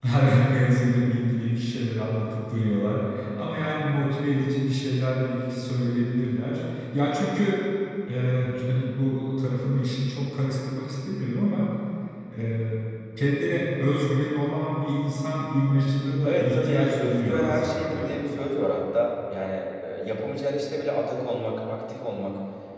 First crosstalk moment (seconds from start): 16.2 s

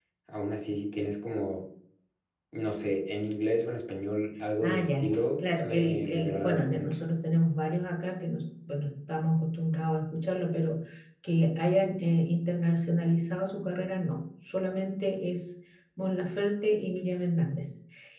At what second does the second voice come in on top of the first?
4.6 s

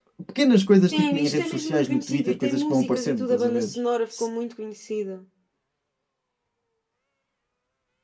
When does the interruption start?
0.9 s

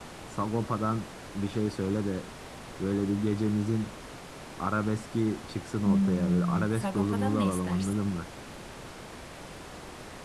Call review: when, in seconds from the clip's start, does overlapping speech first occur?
5.8 s

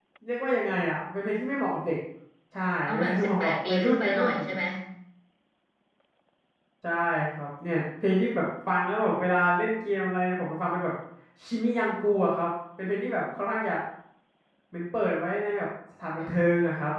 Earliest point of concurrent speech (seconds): 2.9 s

